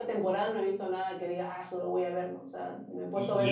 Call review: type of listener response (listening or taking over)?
taking over